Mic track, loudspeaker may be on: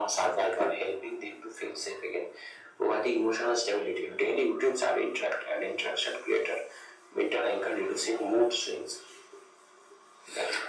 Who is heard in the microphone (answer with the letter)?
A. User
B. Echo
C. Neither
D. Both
B